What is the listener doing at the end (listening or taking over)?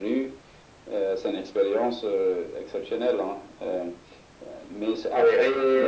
taking over